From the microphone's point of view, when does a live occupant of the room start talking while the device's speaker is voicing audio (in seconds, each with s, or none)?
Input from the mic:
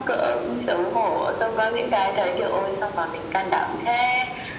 none